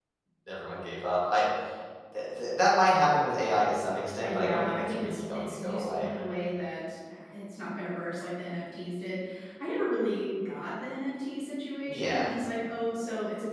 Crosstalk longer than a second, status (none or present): present